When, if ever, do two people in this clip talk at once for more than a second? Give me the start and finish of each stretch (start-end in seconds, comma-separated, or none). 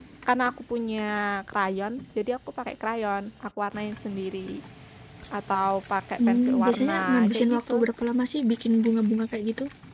6.3-7.7